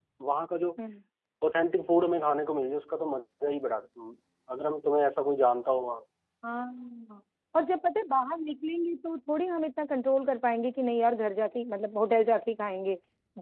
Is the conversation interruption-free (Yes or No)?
Yes